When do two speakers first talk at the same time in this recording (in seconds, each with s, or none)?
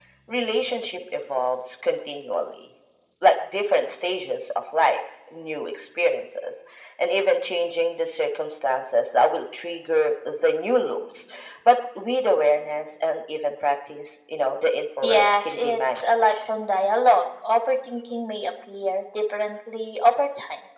15.0 s